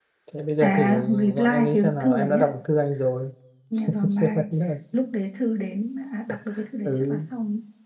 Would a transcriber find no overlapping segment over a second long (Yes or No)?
No